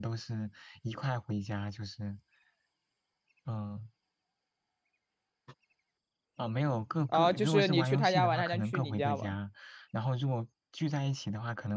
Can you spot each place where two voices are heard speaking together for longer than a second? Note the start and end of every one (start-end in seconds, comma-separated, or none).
7.1-9.3